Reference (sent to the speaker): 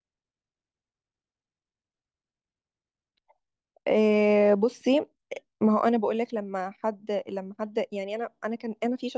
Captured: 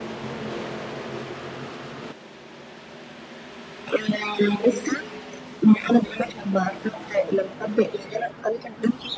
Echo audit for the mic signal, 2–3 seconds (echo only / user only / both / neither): neither